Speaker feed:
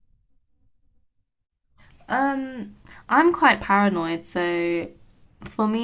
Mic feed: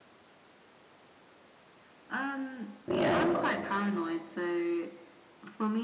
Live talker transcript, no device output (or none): Yeah,